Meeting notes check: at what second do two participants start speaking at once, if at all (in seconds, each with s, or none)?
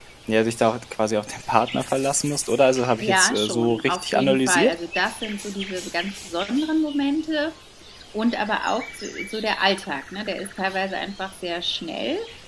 3.0 s